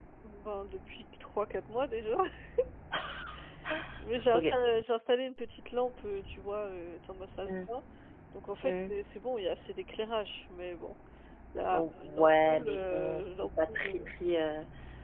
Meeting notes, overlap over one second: present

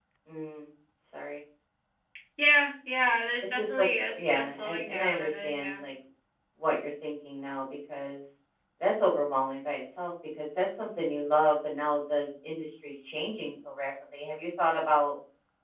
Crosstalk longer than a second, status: present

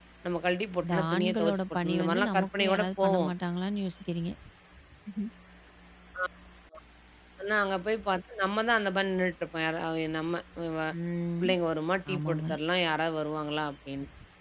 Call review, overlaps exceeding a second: present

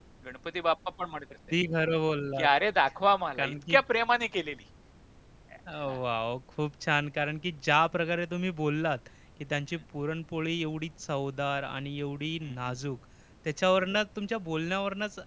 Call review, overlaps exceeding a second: none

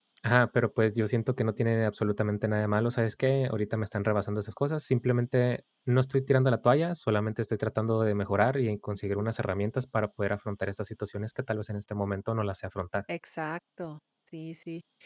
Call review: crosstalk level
none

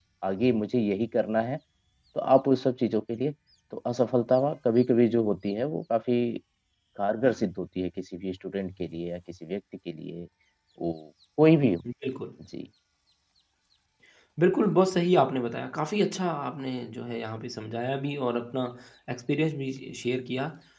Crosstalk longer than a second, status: none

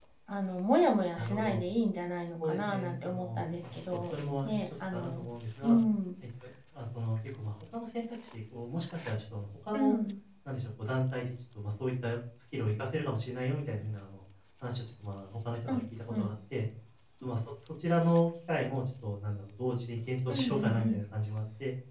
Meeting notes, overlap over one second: present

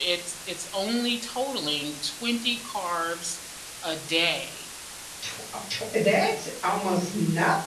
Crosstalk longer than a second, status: none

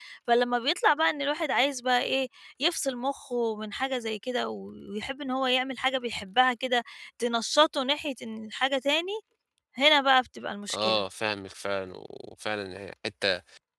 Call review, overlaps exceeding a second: none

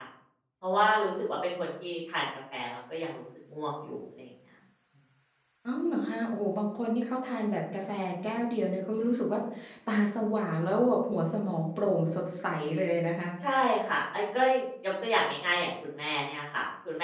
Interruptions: none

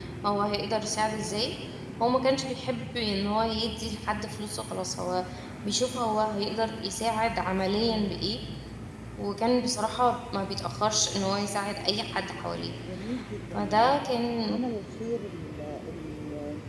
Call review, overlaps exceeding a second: none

